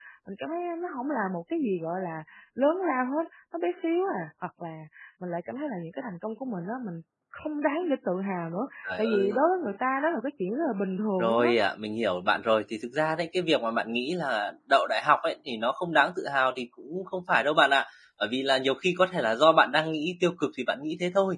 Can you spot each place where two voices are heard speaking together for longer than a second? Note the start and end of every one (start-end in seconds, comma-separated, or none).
none